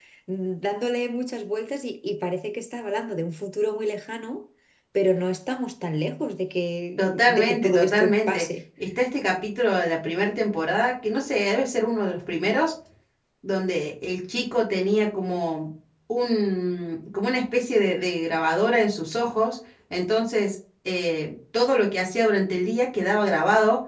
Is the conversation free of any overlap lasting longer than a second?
No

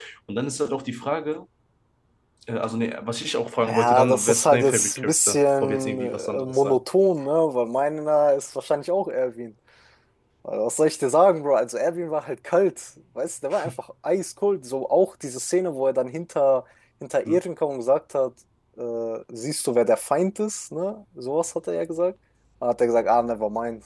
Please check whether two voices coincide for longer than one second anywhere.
Yes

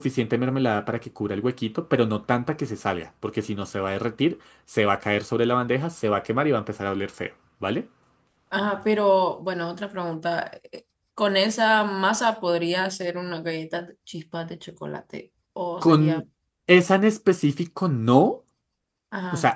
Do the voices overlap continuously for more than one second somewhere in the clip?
No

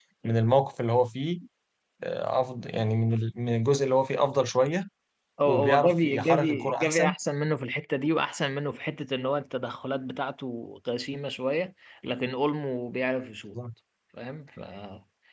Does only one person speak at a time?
No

